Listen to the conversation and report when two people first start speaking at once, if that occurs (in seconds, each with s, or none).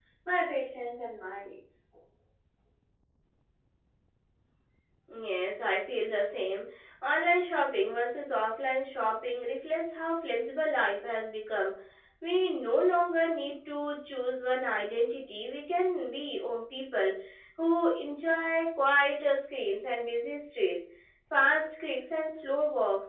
none